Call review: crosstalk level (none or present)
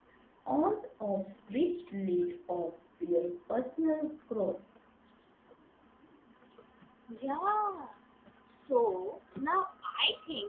none